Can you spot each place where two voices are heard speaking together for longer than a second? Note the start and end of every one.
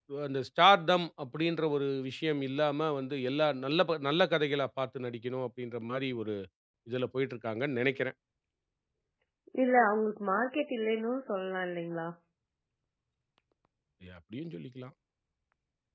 none

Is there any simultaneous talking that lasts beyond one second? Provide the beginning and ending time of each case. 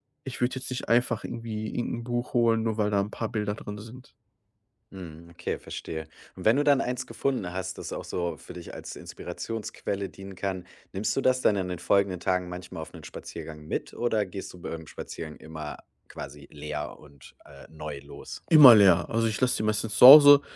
none

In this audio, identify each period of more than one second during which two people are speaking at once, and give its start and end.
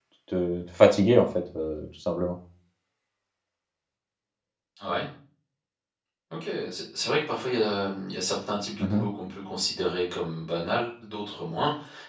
none

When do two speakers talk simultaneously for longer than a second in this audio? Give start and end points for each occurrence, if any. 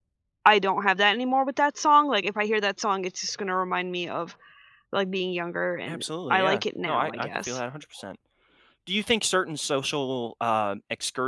5.9-7.6

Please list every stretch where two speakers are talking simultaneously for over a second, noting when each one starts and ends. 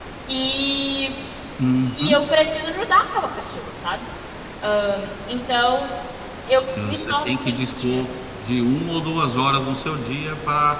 6.8-8.0

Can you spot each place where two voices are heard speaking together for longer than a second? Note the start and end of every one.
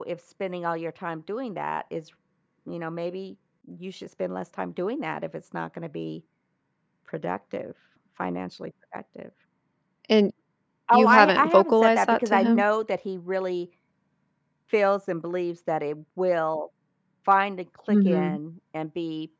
10.9-12.6

